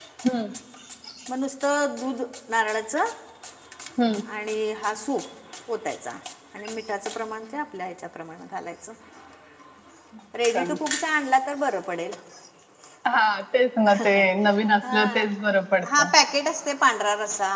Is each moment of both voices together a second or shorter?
Yes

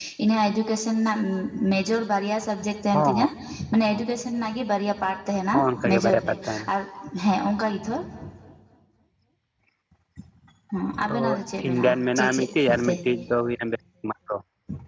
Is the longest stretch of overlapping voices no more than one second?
No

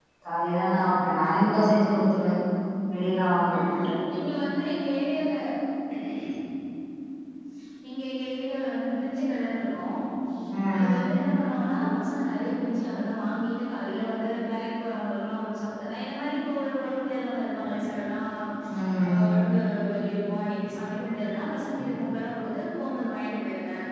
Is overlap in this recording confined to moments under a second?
Yes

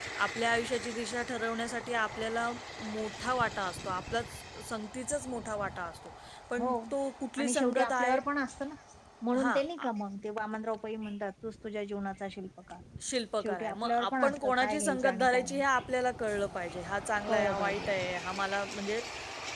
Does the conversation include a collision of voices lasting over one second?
Yes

